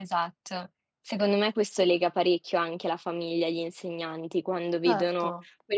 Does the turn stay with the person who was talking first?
Yes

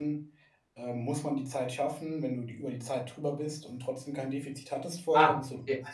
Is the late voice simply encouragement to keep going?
No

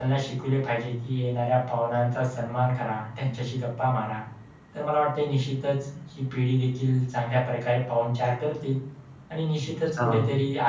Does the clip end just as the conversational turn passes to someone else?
No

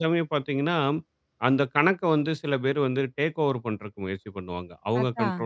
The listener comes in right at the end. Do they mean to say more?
No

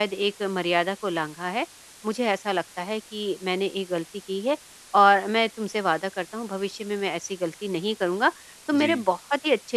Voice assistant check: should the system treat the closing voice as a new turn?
No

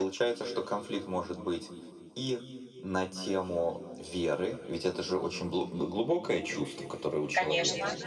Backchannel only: Yes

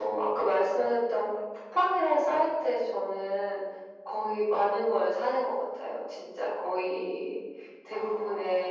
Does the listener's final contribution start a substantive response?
No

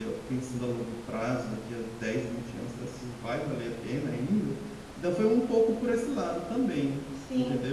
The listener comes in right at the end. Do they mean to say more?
Yes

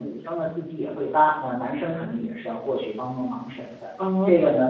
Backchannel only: Yes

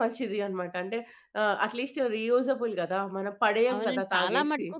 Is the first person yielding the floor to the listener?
Yes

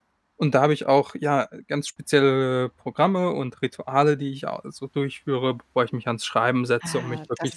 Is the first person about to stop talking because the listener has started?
Yes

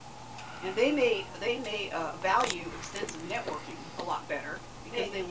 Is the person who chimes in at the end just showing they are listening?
Yes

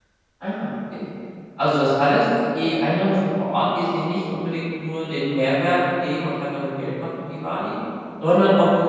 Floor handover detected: No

